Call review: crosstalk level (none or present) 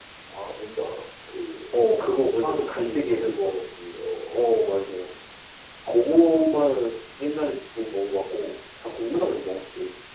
present